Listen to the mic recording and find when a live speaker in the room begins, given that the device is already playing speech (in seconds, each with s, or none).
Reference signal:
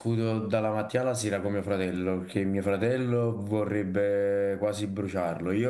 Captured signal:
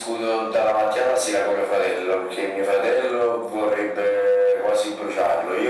none